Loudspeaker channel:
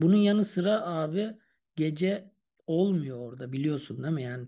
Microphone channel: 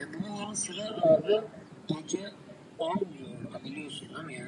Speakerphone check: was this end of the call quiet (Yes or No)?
Yes